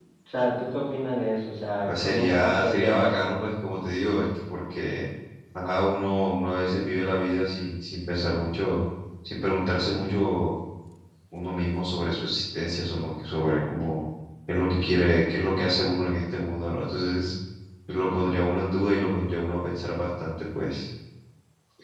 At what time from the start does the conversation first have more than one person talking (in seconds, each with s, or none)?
1.9 s